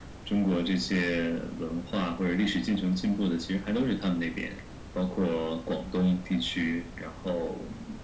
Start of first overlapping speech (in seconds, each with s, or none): none